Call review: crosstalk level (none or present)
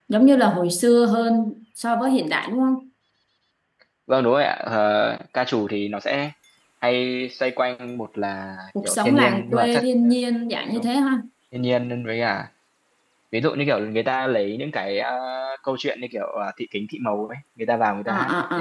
present